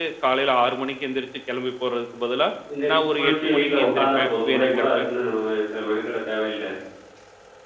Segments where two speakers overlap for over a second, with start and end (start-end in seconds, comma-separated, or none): 2.9-5.0